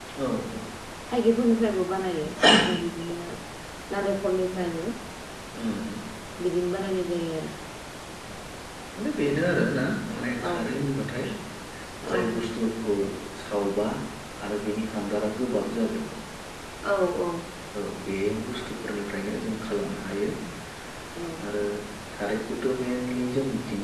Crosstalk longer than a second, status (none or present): none